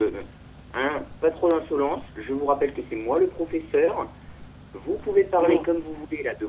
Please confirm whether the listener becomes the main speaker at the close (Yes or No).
No